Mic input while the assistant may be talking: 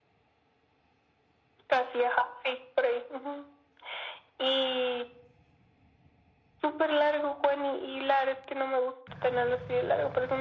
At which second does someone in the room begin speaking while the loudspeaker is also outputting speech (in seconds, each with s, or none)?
none